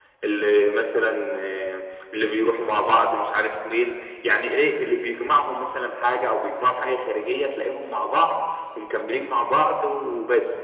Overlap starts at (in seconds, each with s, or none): none